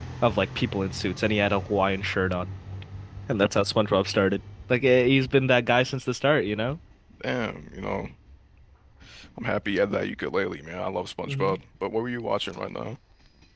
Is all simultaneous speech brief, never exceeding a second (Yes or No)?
Yes